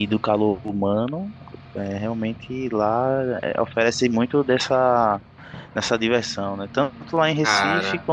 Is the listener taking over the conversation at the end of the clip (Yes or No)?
No